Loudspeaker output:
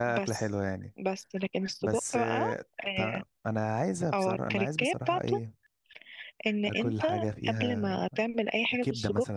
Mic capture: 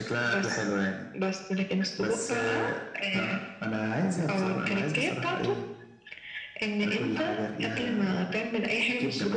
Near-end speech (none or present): none